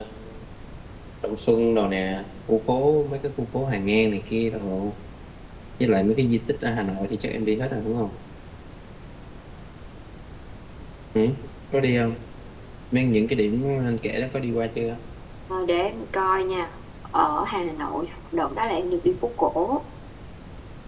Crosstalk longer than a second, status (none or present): none